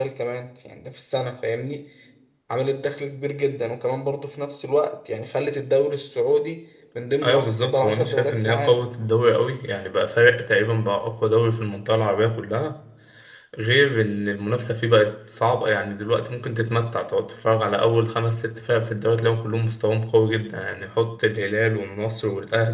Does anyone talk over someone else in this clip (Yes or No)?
Yes